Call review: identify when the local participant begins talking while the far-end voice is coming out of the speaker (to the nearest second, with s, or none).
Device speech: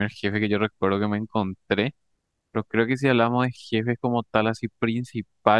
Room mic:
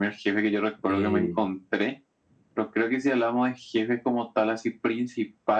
1 s